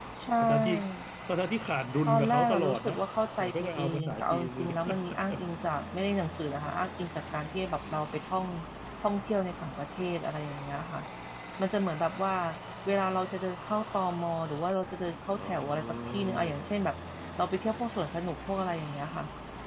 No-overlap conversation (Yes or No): No